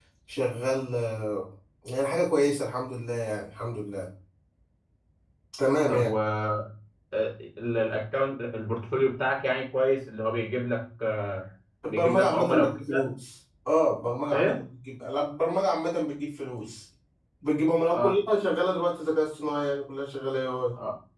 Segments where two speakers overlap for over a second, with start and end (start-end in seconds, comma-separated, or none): 11.9-13.1